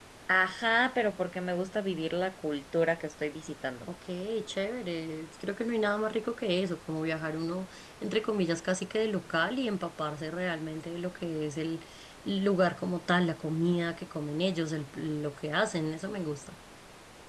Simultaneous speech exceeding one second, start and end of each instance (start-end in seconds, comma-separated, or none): none